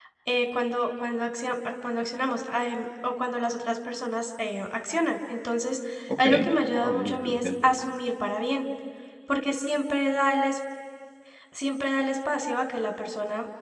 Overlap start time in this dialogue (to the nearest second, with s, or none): 6 s